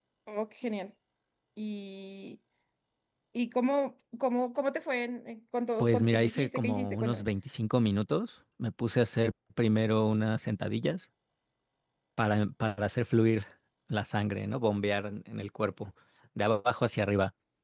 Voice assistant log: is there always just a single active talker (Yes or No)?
No